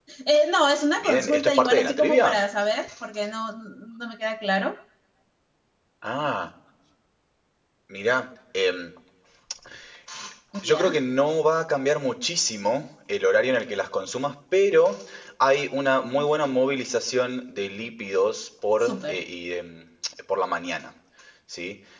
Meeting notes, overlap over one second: present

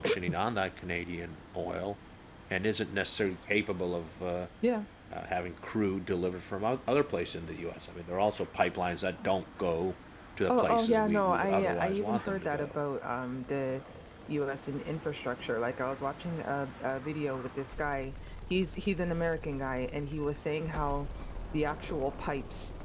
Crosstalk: present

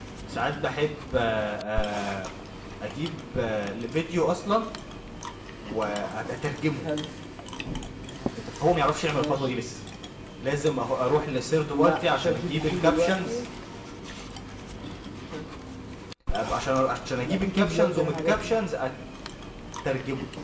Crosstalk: present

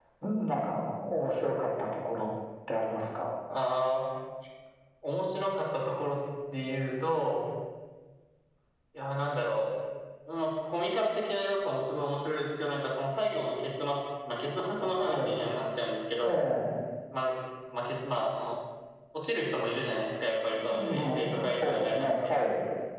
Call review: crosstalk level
present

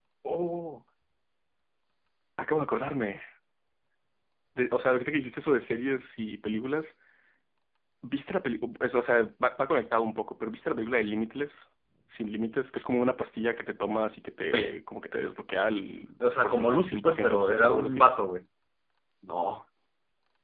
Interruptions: present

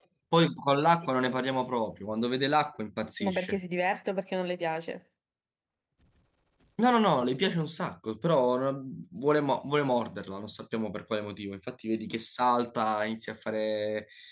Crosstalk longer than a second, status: none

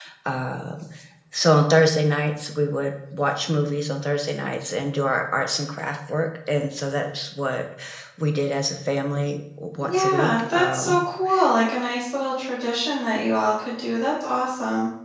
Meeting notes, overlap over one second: present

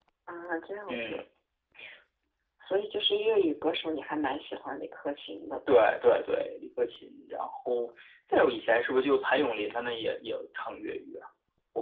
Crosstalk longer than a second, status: none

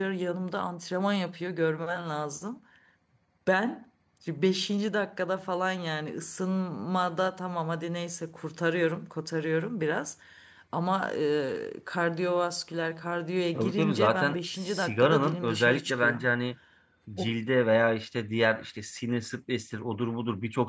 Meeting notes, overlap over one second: present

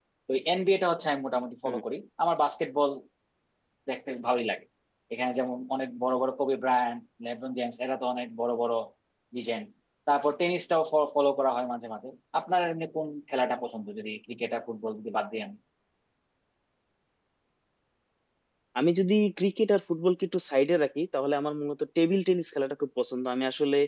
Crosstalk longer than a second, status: none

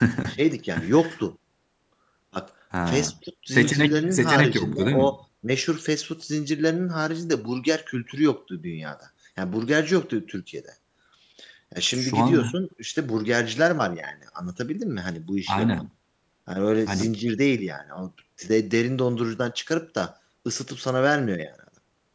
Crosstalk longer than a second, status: present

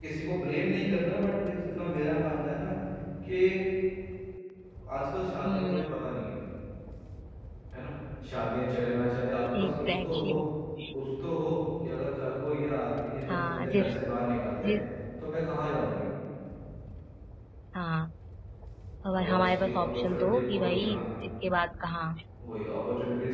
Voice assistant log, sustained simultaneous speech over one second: present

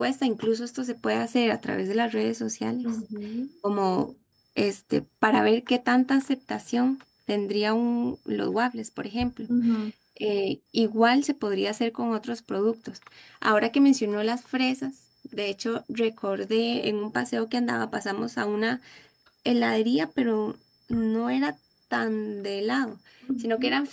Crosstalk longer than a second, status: none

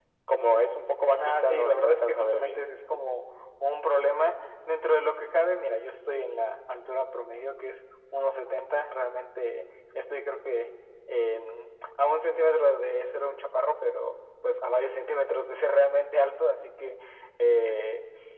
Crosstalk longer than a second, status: present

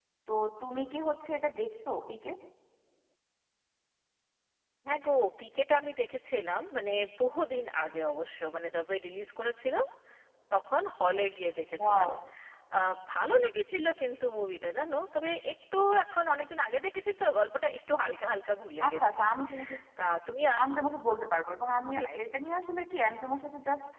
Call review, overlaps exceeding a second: none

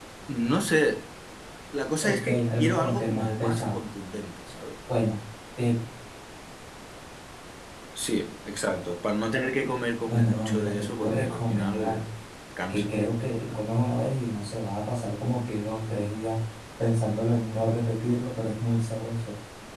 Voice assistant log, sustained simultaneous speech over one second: present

